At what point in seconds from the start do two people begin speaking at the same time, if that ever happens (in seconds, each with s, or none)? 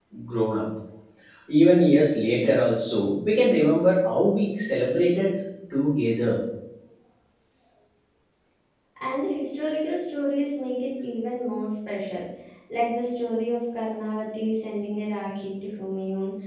none